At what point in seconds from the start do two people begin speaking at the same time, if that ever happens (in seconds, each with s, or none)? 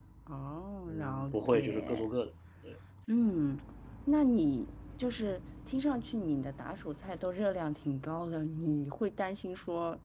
0.9 s